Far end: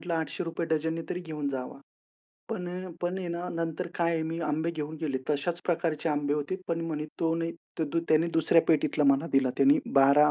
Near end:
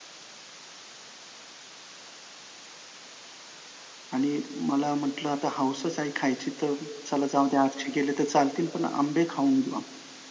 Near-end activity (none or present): present